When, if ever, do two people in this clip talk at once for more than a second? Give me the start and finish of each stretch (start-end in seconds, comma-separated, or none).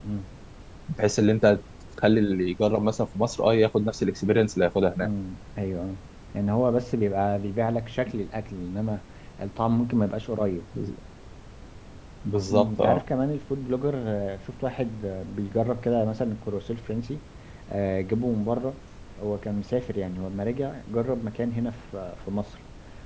none